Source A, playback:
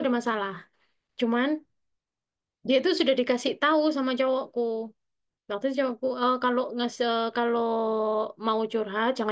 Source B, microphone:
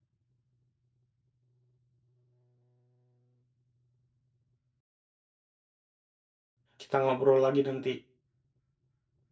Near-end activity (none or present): present